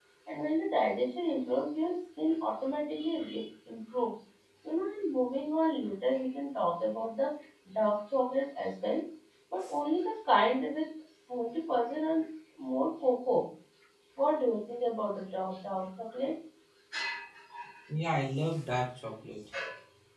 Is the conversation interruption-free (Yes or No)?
Yes